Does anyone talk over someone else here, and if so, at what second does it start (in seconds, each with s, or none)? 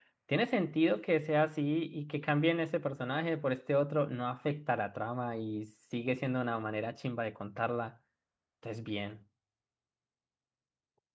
none